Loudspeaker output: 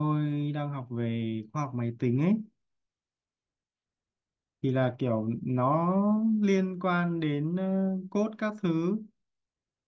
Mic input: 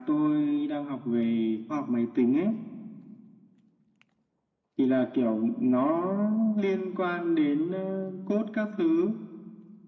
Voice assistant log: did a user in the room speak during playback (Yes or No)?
No